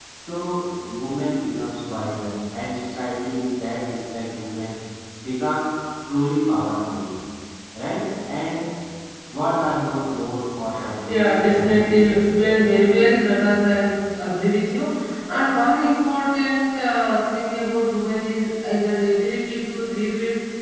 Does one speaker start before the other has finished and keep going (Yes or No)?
Yes